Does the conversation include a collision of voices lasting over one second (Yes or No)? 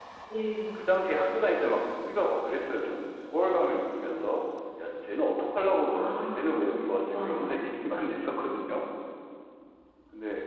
Yes